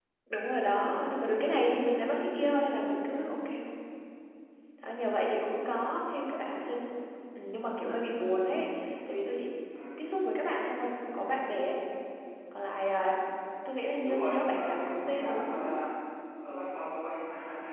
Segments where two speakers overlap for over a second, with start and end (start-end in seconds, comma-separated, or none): 14.0-15.7